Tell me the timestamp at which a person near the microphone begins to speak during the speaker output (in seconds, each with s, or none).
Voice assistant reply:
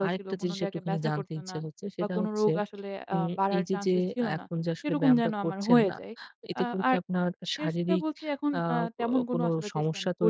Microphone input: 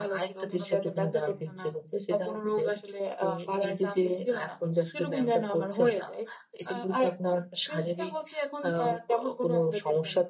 none